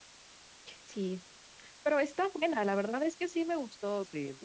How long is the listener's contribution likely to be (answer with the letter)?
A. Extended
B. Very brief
A